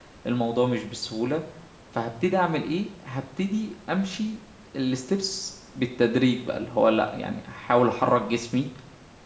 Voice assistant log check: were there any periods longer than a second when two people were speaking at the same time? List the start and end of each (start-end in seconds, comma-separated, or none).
none